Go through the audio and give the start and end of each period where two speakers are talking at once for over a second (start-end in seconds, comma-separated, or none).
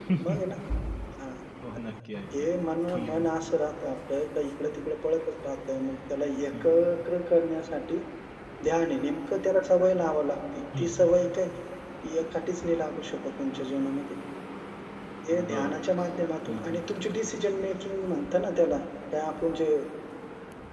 none